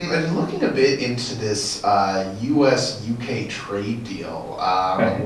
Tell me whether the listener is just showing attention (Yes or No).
Yes